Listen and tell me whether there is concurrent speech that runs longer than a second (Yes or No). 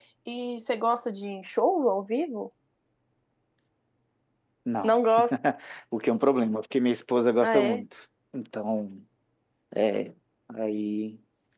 No